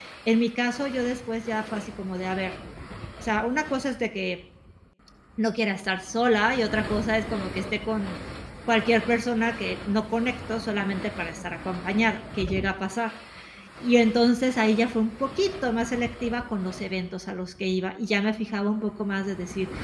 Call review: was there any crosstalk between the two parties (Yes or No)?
No